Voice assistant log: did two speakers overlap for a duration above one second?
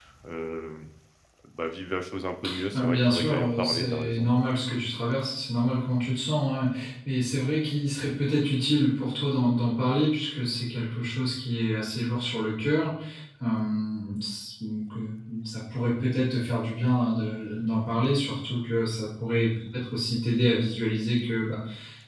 Yes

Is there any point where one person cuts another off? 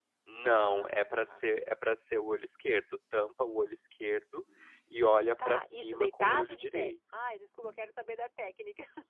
Yes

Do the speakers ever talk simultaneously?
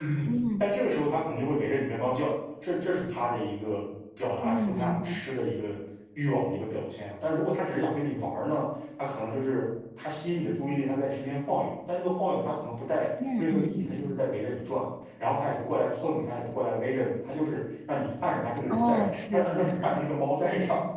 Yes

